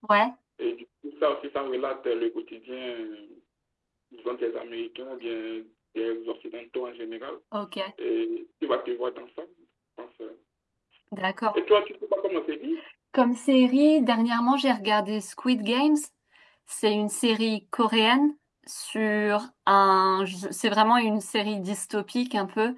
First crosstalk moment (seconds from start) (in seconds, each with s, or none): none